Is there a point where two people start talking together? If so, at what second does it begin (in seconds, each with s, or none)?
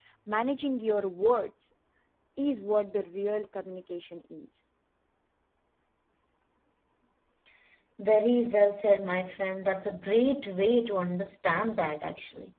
none